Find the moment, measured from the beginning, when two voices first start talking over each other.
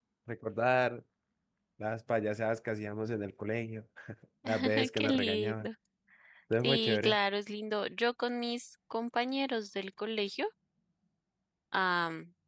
4.5 s

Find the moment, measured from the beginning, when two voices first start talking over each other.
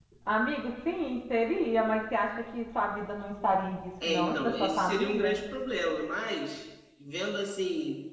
4.0 s

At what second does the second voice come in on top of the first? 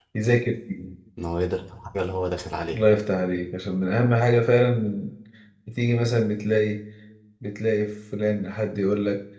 none

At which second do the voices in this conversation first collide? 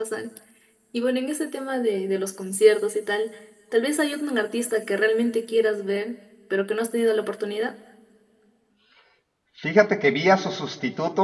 none

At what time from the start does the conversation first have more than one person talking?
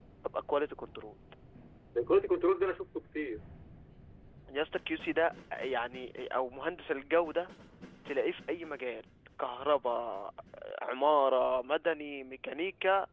none

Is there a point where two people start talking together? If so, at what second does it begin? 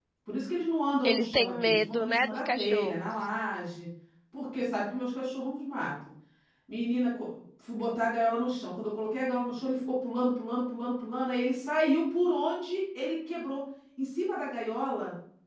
1.0 s

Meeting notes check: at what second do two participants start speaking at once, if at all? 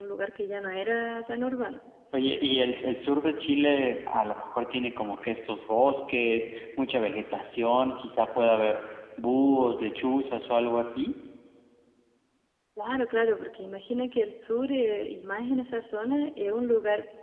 none

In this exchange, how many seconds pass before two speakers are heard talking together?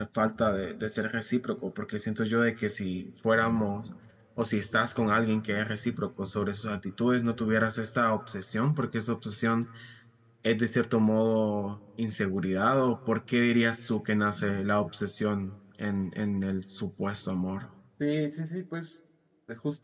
none

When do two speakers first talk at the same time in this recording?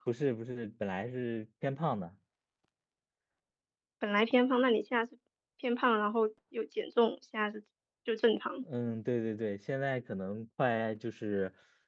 none

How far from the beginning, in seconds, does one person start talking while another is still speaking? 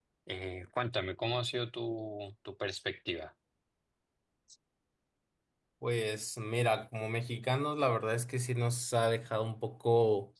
none

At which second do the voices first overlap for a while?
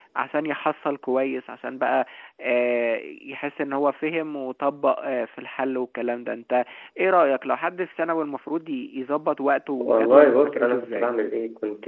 9.8 s

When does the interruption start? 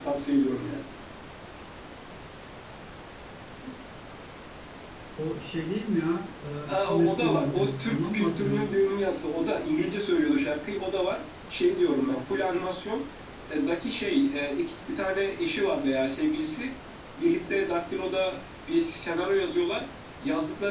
6.7 s

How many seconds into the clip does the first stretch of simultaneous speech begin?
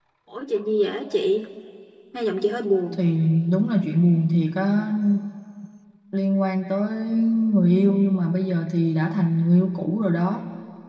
none

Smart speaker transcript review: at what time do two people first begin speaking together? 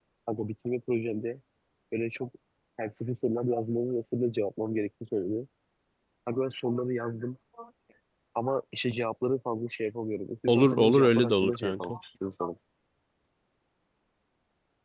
10.5 s

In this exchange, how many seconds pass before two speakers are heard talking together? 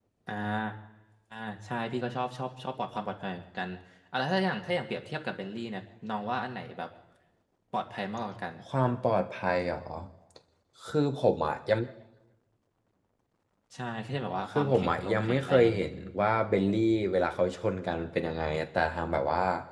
14.5 s

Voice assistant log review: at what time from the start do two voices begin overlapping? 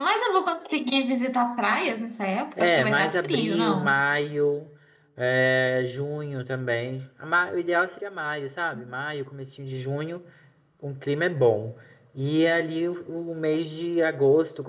2.6 s

